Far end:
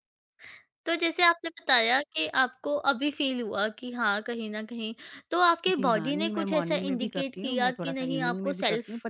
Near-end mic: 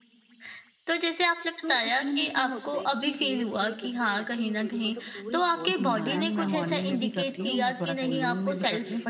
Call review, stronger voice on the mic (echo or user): echo